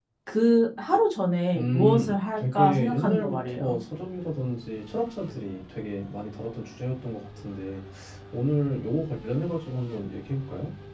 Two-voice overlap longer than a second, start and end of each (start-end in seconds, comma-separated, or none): 1.5-3.8